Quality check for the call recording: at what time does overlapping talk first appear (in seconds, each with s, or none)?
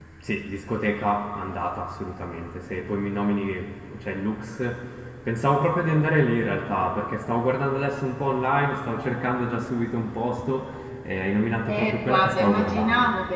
11.7 s